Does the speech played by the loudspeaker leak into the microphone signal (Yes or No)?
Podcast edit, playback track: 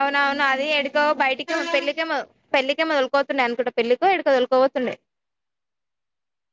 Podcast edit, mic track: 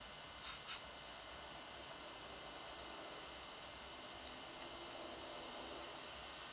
No